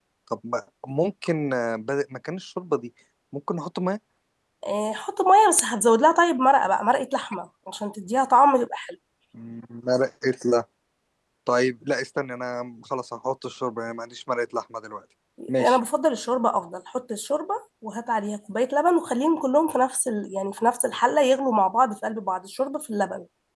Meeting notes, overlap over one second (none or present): none